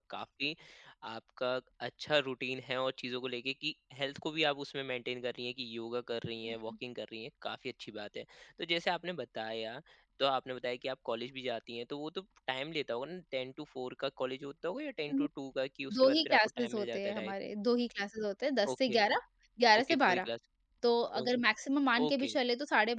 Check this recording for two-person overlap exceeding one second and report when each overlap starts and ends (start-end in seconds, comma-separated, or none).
15.9-17.3